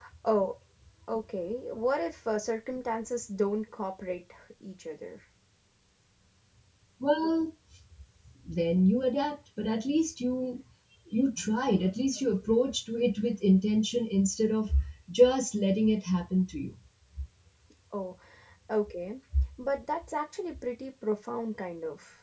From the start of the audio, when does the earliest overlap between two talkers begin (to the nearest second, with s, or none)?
none